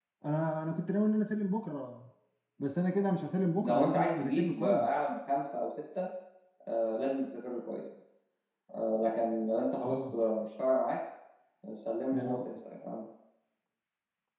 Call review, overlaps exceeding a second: present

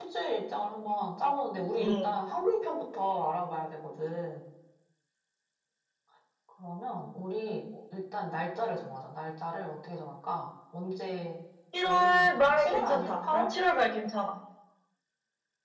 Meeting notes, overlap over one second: present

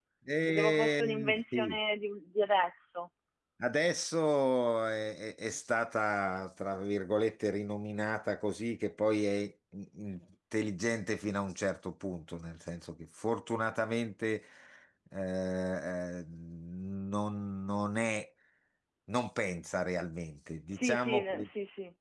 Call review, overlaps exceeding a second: present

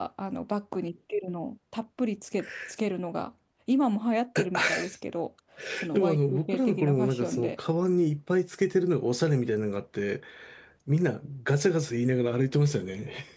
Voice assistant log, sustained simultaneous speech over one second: present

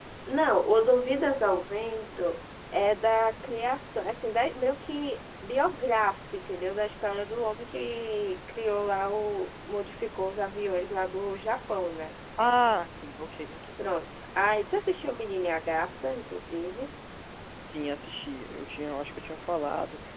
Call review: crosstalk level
none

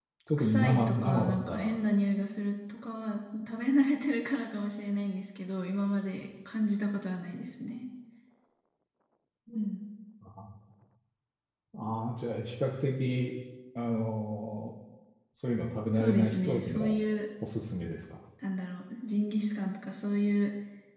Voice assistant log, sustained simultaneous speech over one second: present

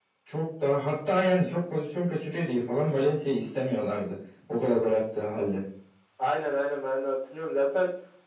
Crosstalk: none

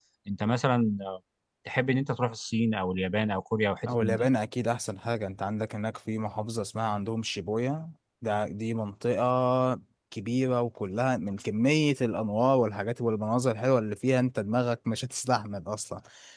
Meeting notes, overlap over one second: none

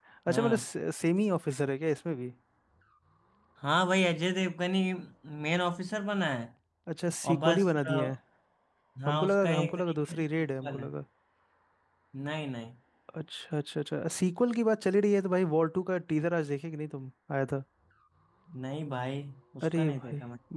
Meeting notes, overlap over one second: present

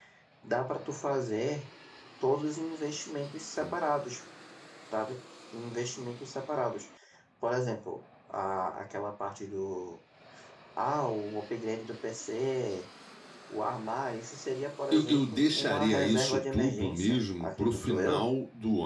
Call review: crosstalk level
present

